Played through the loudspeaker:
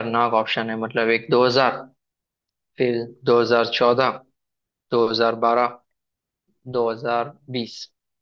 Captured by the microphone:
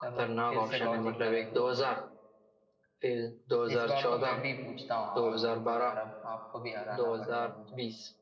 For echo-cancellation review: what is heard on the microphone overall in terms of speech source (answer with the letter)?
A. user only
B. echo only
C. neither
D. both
D